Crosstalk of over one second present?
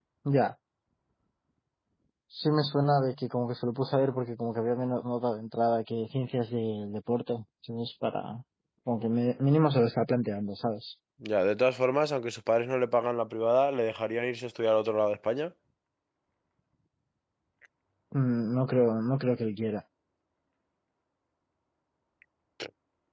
No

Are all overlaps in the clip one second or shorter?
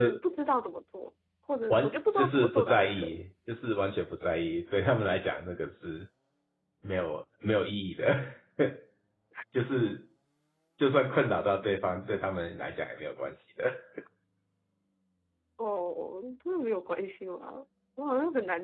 No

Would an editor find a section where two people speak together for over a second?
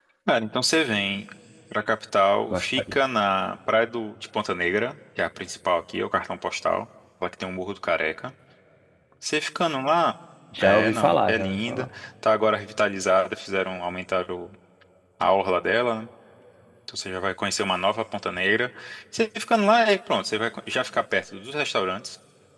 Yes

